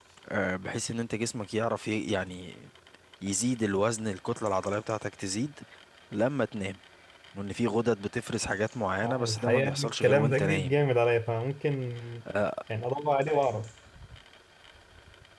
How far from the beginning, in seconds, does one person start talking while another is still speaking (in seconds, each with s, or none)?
9.0 s